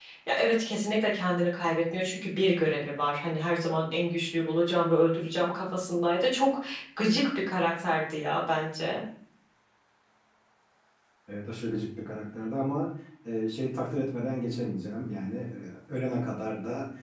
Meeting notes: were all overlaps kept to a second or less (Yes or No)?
Yes